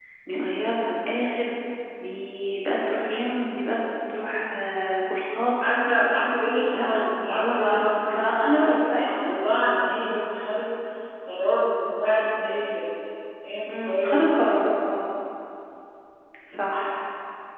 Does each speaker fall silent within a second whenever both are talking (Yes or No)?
No